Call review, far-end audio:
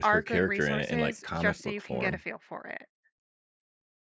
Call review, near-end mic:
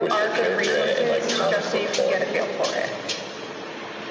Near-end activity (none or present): none